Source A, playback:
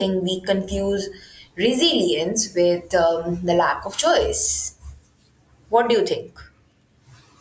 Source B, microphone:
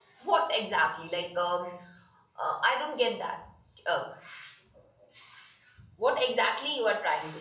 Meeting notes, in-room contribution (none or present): present